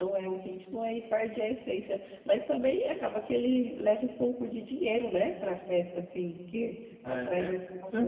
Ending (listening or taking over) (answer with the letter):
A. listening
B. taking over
B